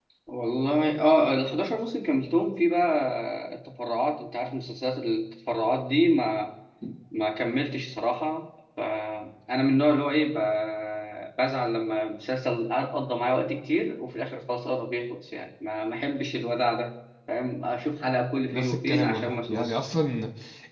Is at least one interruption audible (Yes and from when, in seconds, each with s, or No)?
Yes, from 18.5 s